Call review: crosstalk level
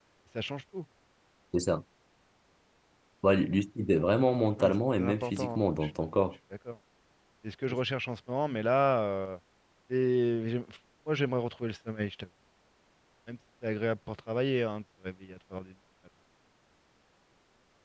present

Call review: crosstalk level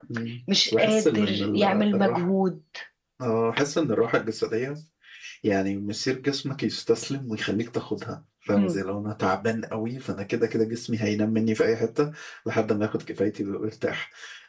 present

